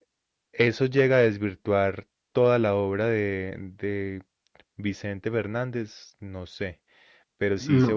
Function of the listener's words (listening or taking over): listening